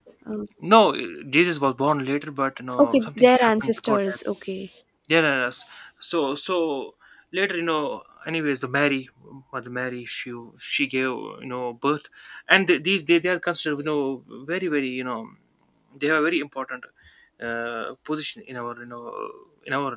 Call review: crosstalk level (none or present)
present